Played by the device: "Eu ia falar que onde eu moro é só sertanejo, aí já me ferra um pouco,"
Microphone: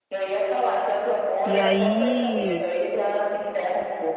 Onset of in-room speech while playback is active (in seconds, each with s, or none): 1.4 s